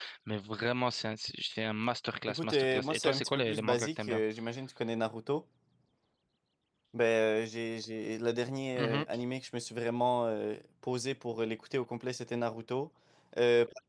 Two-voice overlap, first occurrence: 2 s

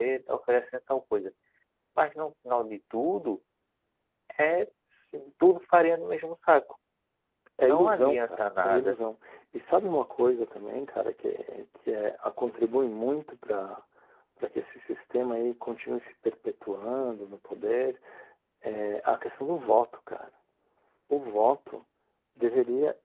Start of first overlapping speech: 8 s

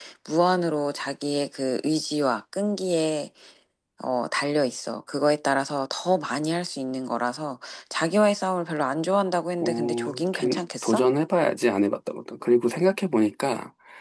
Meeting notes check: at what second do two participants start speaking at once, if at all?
10 s

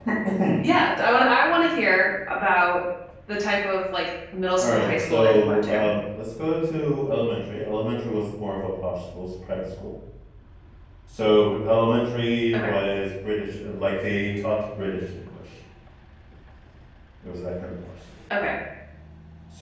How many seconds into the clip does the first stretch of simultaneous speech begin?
5 s

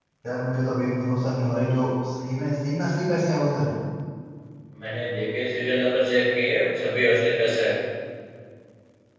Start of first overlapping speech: none

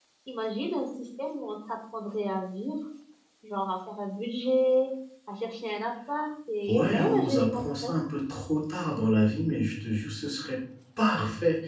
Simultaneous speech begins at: 7 s

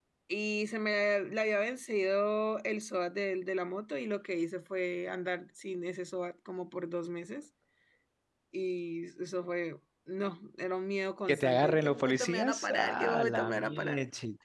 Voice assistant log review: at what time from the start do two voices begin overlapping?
11 s

